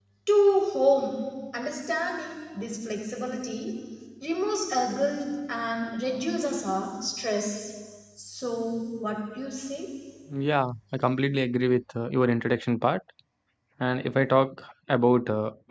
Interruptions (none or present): none